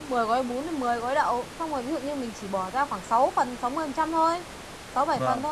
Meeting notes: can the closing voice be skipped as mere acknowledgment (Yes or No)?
Yes